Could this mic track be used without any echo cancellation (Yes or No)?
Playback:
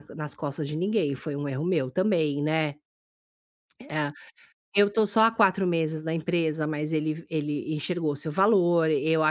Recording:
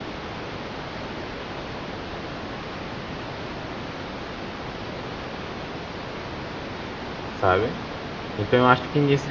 Yes